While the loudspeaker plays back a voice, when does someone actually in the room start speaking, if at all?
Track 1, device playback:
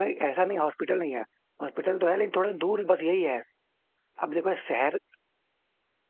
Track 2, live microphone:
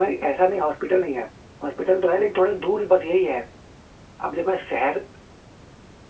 none

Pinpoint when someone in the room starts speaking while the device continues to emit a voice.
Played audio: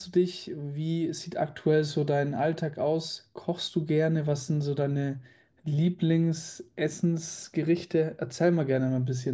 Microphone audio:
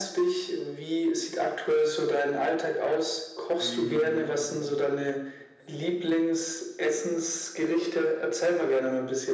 3.6 s

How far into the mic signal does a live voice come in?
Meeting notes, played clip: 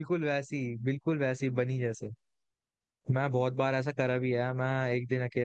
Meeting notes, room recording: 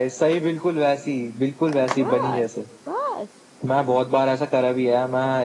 1.9 s

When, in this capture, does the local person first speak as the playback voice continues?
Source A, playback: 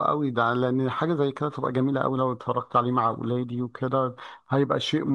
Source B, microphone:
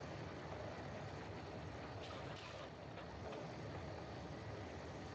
none

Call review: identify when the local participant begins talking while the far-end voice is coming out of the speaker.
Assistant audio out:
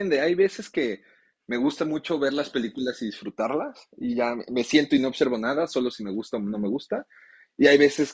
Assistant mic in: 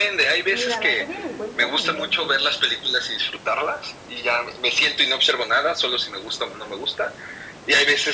0.5 s

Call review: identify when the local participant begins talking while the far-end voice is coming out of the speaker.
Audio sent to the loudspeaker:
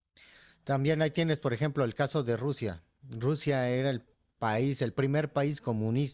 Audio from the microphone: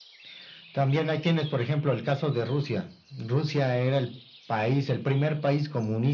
none

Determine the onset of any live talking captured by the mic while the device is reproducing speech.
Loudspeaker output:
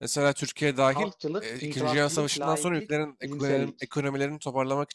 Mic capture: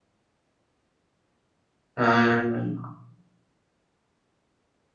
2.0 s

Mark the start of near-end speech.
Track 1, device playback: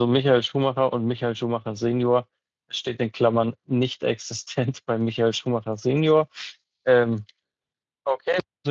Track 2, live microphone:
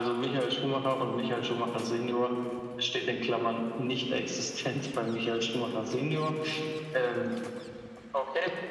none

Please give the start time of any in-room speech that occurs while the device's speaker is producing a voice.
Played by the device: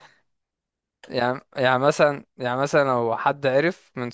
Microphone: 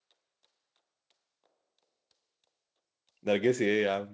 3.2 s

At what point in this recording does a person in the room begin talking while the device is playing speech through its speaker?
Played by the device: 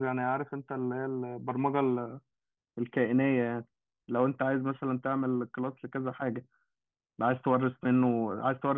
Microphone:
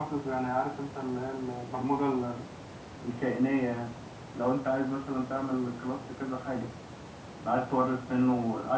none

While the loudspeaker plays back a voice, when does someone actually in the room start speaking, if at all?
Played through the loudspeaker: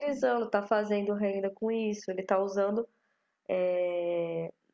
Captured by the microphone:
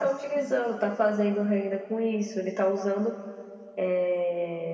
none

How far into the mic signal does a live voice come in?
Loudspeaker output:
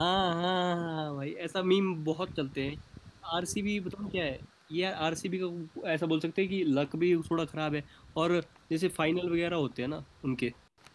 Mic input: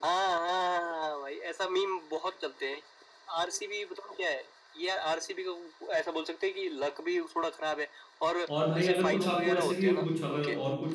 8.6 s

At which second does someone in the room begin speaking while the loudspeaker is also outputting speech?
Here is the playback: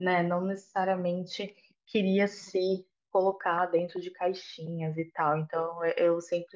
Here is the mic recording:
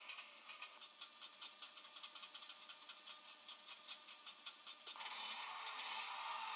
none

